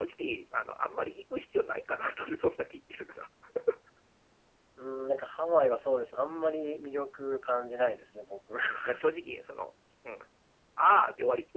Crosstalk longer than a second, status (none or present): none